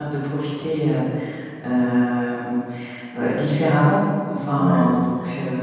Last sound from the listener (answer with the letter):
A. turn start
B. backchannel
B